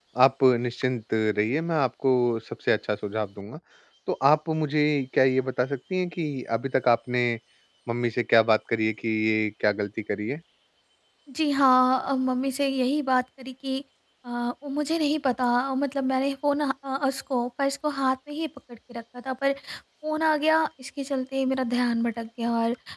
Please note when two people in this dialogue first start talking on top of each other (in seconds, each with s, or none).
none